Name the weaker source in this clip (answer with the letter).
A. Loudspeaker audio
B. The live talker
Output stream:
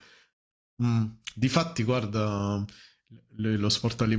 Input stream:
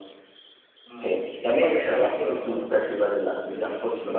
A